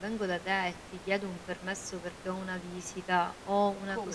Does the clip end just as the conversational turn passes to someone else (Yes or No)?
No